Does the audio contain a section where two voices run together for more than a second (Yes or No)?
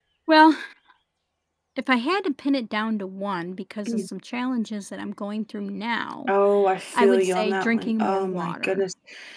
Yes